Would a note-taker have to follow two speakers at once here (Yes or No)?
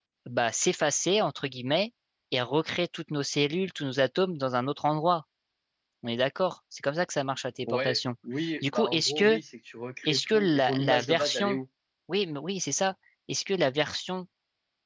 Yes